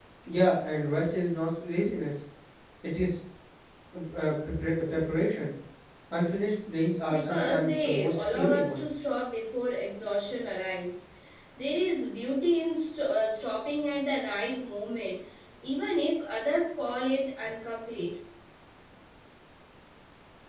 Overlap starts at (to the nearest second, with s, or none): 7 s